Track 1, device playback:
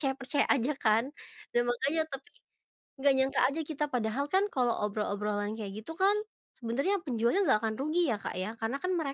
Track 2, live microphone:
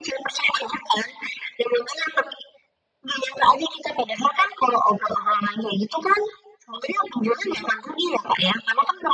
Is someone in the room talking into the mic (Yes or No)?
No